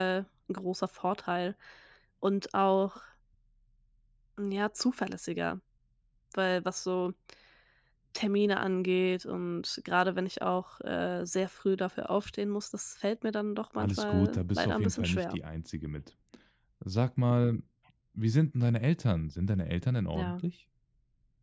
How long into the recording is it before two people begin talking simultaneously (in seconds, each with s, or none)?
13.8 s